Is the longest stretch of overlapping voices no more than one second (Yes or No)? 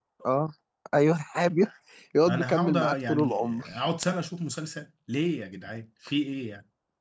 No